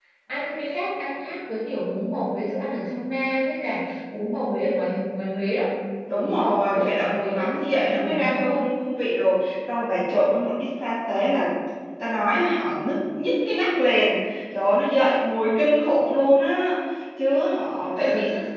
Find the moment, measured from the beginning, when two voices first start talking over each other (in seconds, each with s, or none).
6.1 s